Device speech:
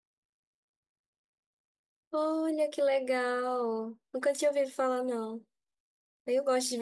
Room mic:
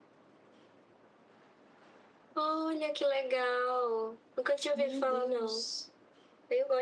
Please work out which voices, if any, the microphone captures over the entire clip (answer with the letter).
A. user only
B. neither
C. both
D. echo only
C